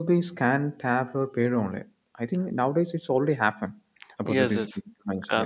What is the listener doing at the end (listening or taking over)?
taking over